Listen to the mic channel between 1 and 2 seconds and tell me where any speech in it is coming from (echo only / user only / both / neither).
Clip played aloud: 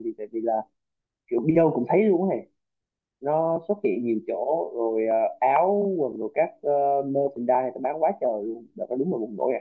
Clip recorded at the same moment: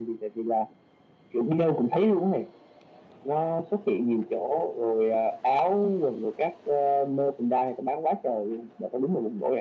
echo only